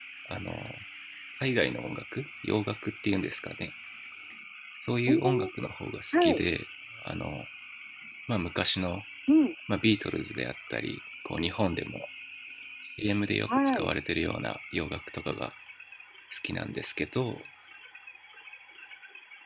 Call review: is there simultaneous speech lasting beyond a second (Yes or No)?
No